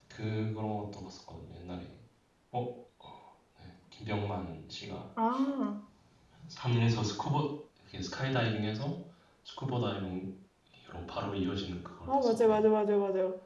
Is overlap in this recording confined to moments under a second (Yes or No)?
Yes